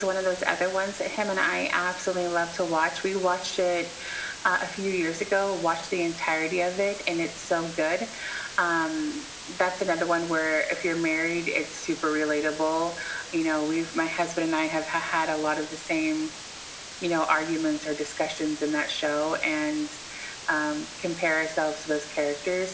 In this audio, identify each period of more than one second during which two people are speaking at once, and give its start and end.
none

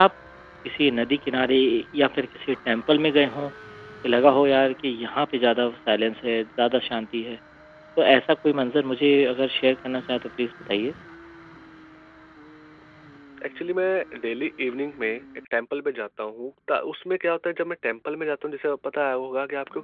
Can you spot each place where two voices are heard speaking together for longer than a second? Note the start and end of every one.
none

